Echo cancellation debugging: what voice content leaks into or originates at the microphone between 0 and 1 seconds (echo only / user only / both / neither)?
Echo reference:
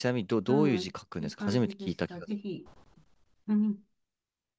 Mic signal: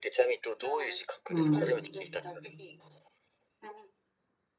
echo only